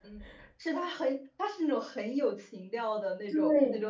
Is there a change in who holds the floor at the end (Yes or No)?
Yes